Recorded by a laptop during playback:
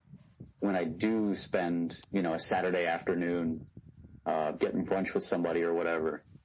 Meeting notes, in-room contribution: none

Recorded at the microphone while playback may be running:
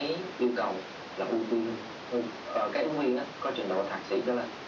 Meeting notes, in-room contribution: none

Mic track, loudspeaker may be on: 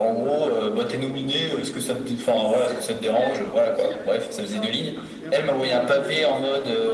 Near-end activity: present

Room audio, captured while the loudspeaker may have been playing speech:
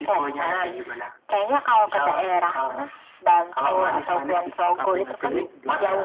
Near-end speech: present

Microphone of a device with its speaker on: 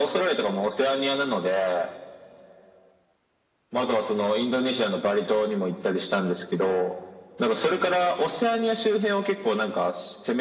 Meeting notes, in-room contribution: none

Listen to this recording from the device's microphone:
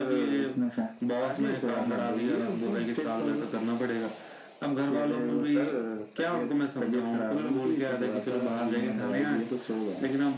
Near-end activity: none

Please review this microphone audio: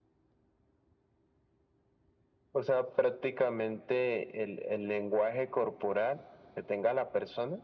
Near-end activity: none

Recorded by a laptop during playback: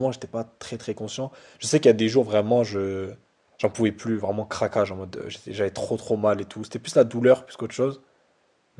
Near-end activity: present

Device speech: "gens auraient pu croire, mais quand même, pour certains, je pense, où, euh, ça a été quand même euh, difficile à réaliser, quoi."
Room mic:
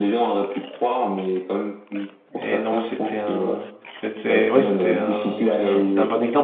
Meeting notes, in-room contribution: present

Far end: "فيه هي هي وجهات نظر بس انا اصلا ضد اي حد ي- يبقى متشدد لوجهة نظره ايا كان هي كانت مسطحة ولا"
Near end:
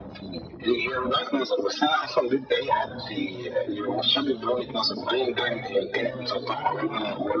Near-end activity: present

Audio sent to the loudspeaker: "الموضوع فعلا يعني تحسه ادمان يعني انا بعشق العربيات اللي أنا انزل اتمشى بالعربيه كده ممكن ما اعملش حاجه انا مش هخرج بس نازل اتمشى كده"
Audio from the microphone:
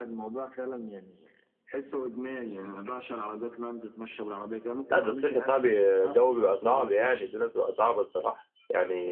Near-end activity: present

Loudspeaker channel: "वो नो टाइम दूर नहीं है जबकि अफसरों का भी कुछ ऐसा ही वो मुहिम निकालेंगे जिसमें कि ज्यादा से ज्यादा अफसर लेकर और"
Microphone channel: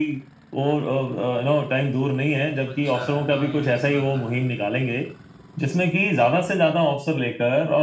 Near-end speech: present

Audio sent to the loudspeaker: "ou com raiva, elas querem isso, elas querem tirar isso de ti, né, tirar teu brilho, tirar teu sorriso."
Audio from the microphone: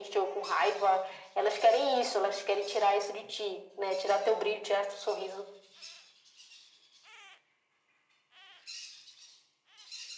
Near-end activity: none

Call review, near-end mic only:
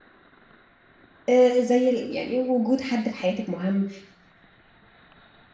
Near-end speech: present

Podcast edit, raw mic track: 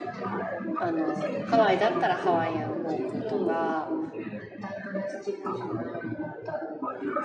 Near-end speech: present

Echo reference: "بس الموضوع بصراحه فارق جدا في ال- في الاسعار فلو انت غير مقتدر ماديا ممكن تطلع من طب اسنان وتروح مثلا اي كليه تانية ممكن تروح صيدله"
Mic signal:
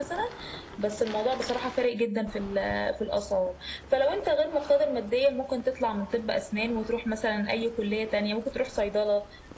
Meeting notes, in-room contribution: none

